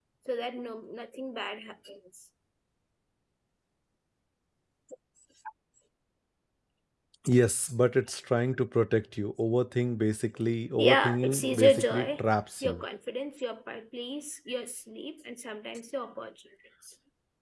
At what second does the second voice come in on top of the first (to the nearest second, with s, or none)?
11 s